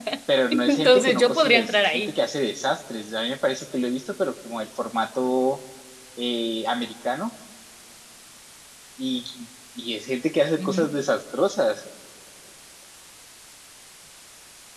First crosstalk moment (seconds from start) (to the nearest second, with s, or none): 1 s